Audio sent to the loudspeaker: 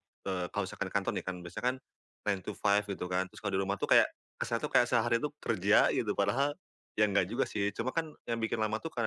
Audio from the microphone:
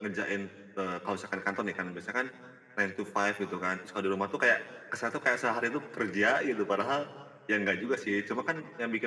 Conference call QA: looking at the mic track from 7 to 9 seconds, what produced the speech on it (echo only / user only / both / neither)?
echo only